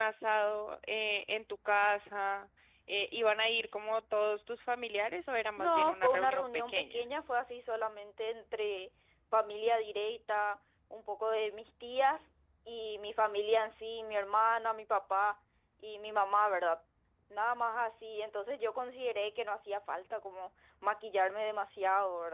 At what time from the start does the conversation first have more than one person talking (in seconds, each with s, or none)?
5.6 s